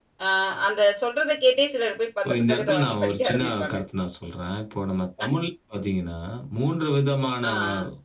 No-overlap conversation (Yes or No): No